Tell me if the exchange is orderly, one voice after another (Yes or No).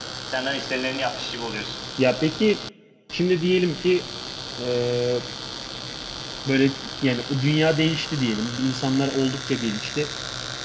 Yes